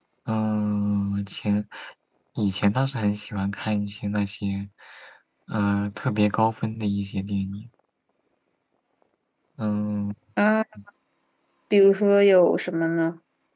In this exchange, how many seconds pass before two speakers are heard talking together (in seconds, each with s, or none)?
none